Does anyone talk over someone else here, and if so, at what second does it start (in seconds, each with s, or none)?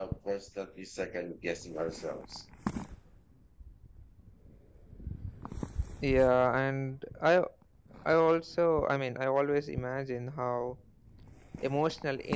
none